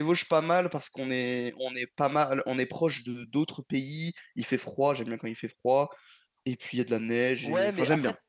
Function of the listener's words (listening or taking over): taking over